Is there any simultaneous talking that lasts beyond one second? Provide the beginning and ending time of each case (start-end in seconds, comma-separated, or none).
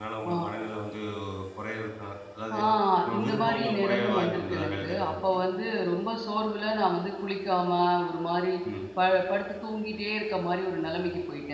3.2-5.4